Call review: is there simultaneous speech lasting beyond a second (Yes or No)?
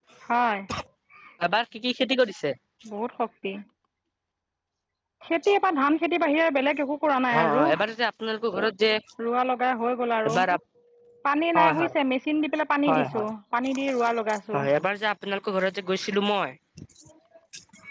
No